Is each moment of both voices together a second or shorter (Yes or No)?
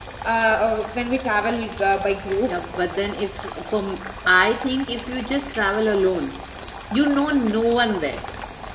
Yes